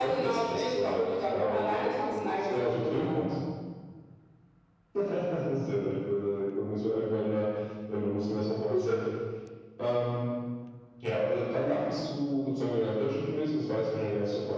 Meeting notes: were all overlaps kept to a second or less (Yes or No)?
No